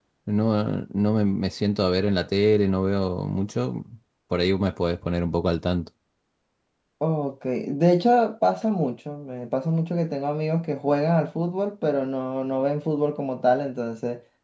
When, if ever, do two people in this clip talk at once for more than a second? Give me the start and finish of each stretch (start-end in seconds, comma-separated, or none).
none